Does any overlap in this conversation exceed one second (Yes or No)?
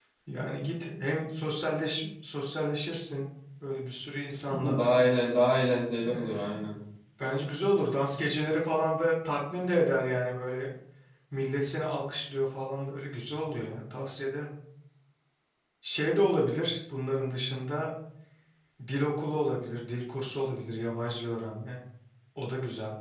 No